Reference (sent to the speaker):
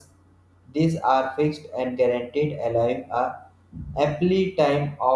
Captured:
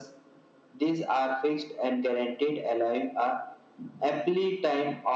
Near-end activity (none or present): none